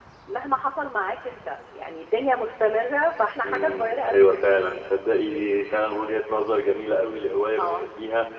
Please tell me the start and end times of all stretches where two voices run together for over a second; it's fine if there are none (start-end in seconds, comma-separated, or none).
3.4-4.7